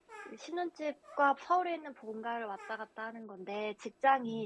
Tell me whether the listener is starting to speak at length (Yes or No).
No